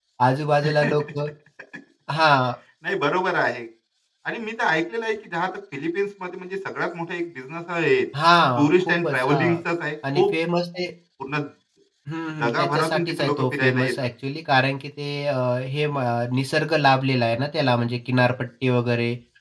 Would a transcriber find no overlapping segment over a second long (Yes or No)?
No